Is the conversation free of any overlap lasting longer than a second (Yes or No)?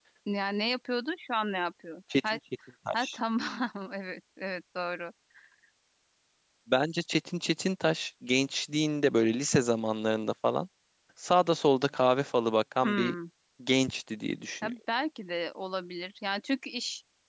Yes